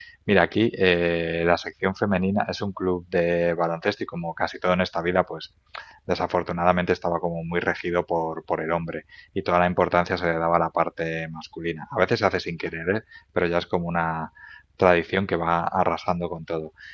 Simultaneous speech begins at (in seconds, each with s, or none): none